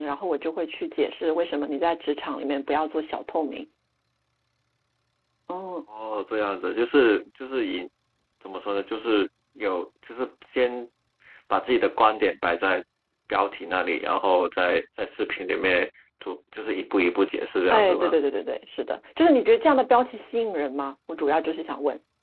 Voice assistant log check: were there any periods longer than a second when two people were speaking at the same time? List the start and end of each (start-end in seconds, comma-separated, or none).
none